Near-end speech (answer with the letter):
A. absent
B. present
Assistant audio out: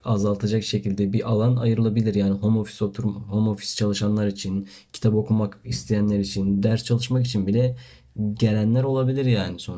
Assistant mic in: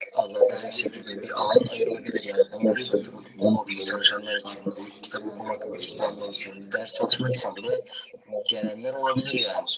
B